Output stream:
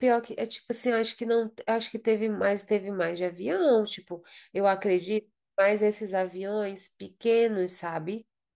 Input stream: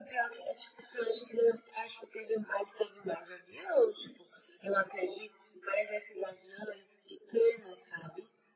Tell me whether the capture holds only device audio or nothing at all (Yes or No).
Yes